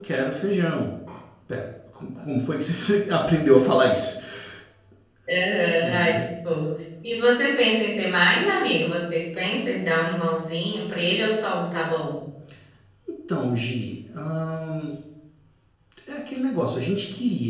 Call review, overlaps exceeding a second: none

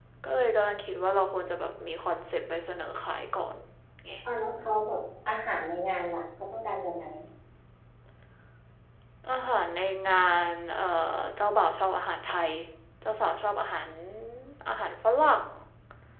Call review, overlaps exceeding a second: none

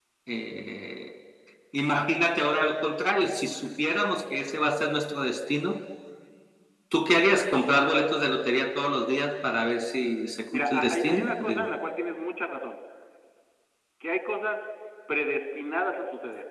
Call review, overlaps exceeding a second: present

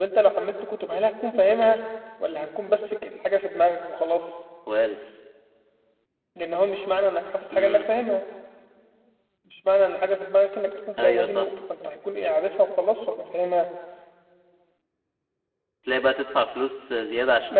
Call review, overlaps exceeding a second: none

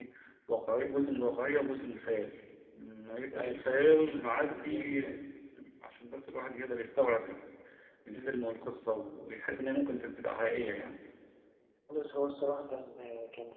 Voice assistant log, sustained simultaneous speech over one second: present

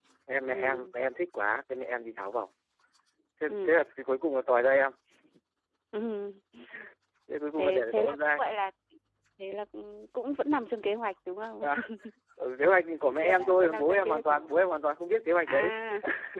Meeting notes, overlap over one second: present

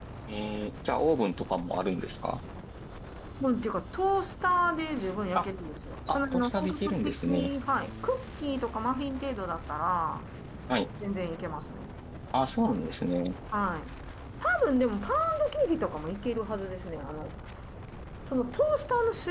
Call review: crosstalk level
present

